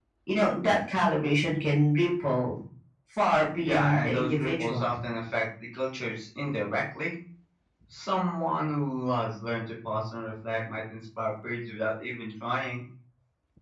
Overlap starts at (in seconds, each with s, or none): 3.6 s